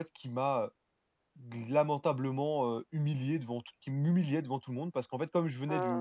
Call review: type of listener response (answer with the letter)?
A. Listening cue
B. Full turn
A